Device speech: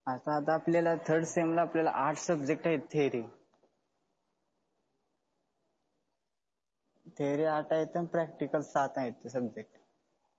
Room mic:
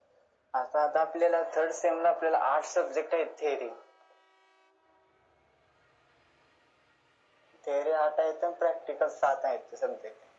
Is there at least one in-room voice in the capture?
No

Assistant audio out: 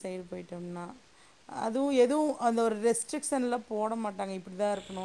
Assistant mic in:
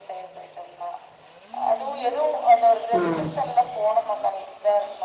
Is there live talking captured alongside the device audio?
Yes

